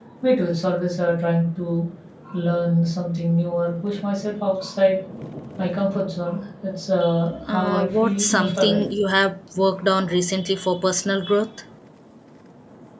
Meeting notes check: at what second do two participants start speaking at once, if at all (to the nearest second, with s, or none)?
7 s